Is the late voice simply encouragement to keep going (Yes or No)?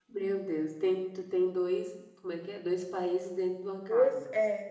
No